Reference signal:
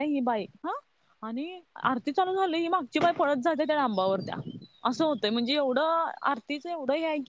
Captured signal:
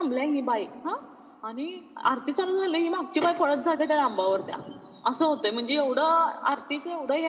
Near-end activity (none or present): none